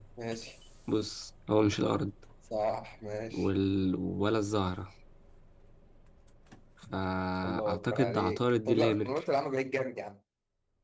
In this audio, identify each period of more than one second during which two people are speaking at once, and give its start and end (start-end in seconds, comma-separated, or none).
7.4-9.2